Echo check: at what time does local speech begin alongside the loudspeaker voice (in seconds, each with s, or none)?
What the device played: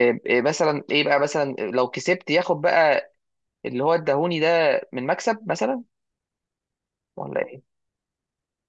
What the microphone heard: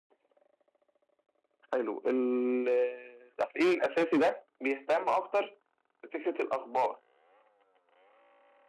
1.7 s